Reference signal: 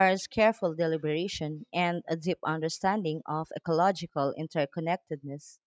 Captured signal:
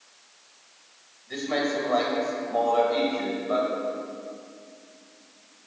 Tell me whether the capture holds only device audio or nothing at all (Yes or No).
No